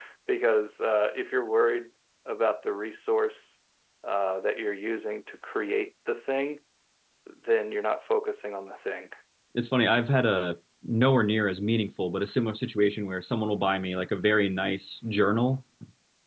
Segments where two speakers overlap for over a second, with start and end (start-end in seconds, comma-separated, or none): none